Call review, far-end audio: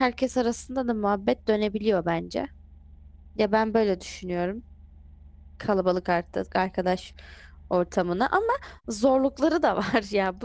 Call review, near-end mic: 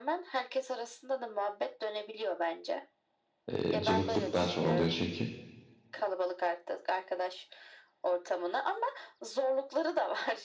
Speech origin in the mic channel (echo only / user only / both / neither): both